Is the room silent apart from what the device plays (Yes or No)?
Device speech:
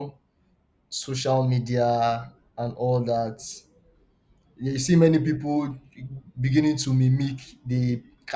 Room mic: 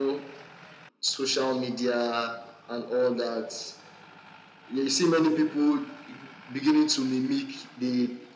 Yes